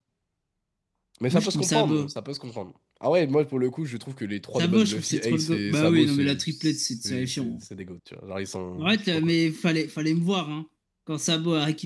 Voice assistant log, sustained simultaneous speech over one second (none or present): present